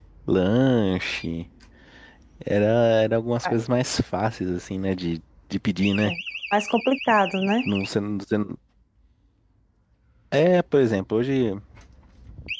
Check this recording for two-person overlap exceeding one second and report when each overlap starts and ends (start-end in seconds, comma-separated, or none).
none